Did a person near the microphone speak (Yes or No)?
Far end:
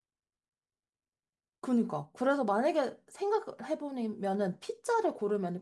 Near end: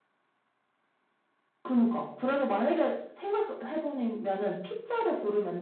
No